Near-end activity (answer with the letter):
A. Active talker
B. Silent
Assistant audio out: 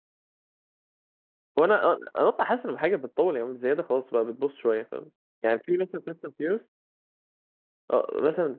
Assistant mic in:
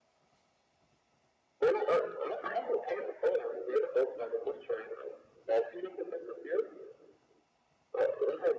B